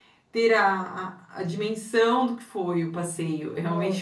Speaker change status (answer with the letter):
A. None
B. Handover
B